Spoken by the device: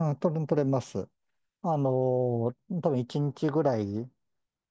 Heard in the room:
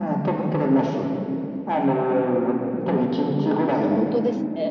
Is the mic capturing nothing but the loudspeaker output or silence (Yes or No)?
No